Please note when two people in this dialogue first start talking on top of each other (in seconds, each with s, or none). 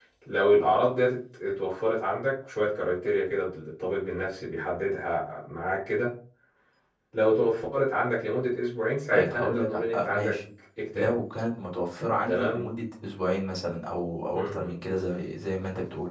9.1 s